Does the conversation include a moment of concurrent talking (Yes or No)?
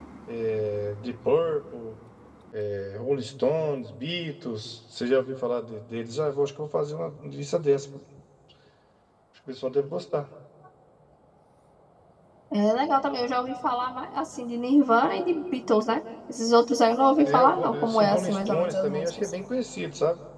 Yes